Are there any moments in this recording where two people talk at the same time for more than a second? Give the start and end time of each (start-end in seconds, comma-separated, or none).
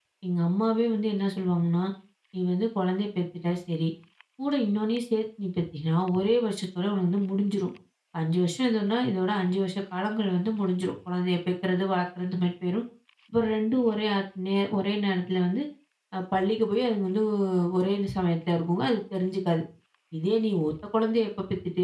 none